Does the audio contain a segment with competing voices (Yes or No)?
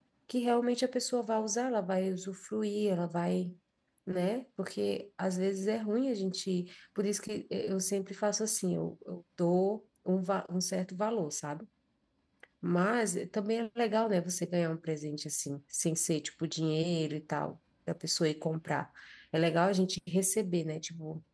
No